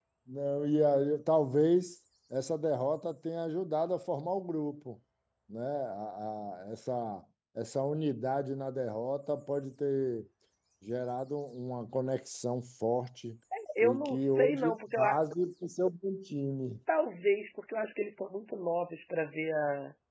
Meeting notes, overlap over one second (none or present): present